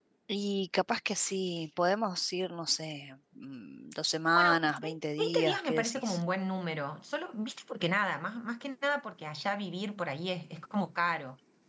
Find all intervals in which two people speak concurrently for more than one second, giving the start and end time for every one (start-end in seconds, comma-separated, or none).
4.3-6.2